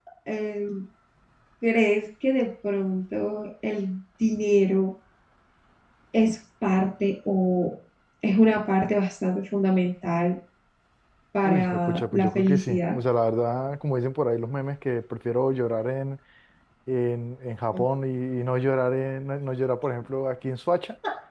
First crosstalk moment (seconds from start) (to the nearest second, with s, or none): 11 s